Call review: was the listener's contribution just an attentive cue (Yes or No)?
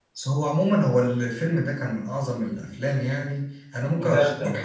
Yes